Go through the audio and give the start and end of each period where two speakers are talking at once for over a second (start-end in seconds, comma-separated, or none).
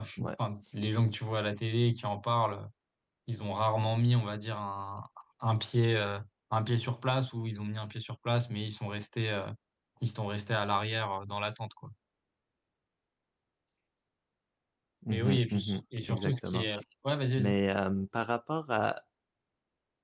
15.1-16.7